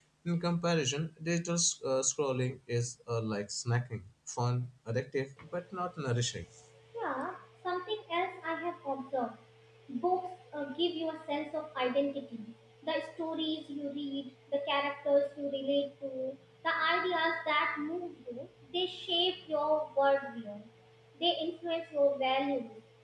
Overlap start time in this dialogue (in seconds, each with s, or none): none